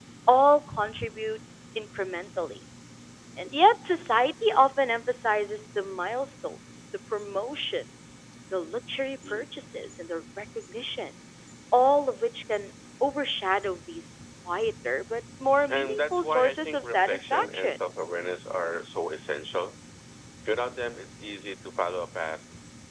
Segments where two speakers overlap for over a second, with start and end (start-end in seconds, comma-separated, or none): 15.7-17.8